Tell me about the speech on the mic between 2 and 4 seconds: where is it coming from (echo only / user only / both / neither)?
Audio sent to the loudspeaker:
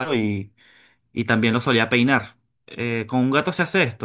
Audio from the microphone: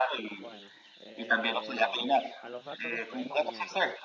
both